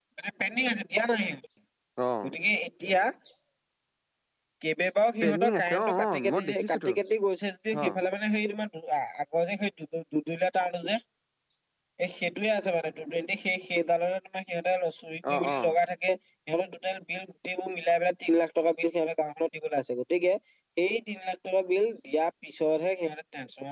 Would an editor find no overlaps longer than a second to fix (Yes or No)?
No